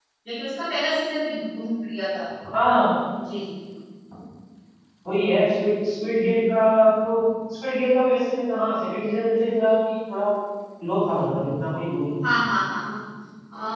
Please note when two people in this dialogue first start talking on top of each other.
none

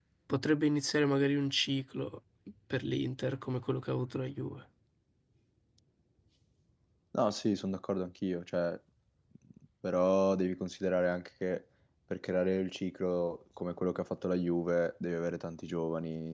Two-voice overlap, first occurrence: none

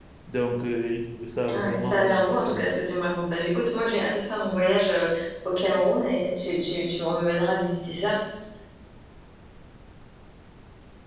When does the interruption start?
1.5 s

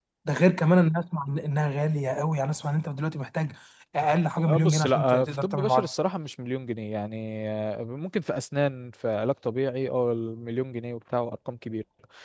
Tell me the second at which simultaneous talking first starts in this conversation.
4.5 s

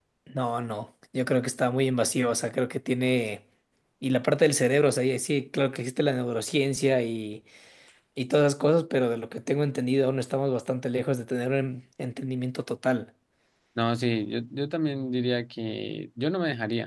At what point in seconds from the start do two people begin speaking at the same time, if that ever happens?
none

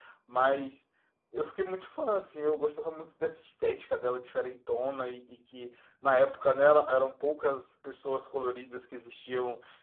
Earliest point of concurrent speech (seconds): none

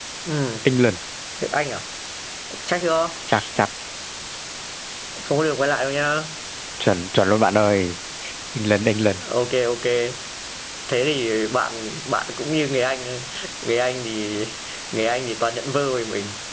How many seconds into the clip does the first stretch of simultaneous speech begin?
none

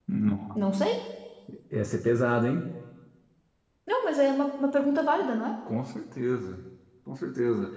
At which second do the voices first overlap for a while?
none

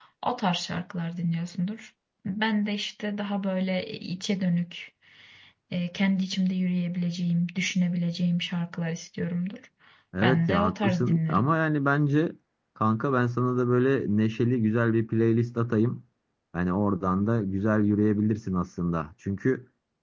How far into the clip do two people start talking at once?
10.2 s

